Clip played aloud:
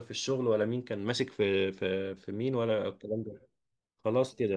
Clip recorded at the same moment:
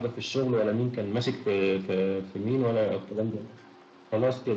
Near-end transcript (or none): none